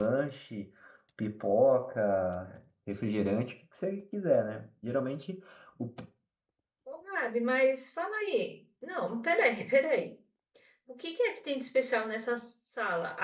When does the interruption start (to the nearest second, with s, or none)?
none